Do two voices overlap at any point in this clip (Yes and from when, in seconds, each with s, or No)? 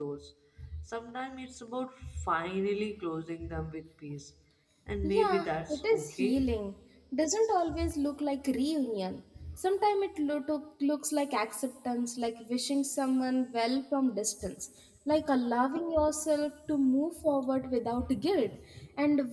Yes, from 5.0 s